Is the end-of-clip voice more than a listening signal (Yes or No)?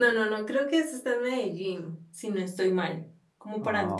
No